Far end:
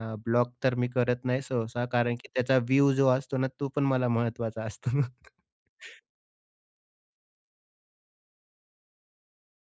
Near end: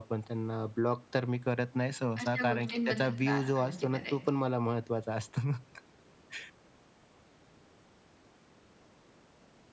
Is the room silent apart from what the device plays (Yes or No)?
No